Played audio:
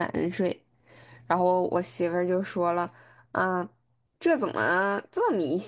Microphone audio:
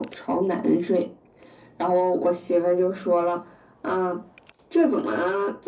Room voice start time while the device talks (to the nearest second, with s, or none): none